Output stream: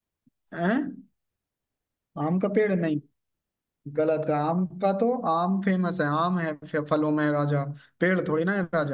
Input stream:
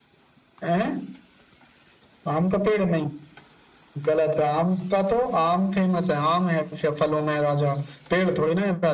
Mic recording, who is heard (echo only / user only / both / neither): echo only